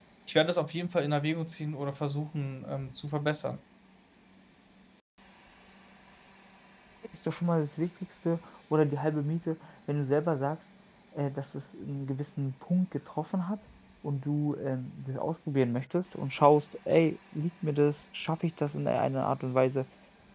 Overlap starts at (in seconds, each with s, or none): none